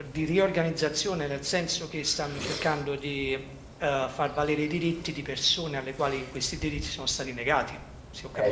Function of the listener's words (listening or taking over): taking over